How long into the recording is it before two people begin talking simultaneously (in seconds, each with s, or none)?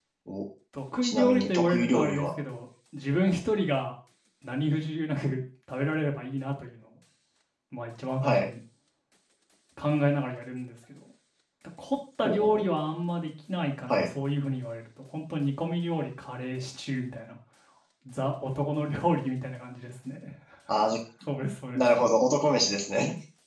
1.0 s